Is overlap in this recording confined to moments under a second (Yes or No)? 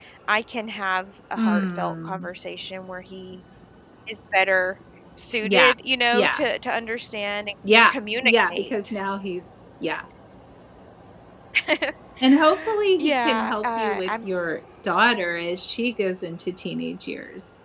No